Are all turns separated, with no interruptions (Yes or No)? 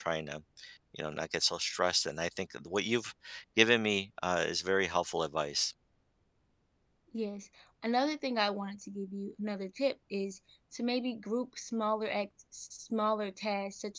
Yes